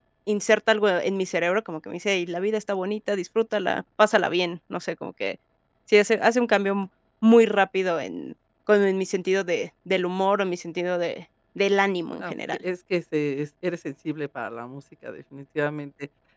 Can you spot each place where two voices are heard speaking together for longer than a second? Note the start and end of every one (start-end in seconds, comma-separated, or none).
none